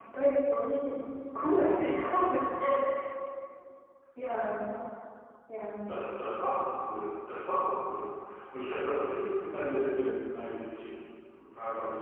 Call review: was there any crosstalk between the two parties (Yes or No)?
No